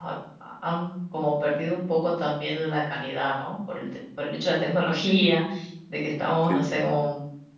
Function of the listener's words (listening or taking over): listening